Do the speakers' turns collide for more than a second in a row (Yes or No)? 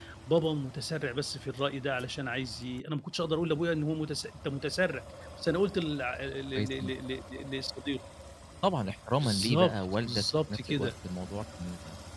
Yes